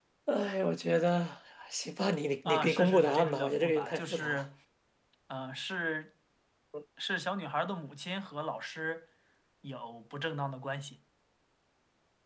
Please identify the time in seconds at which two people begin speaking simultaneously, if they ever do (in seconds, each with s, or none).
2.4 s